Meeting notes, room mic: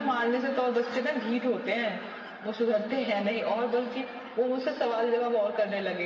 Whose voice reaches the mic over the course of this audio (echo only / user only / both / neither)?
echo only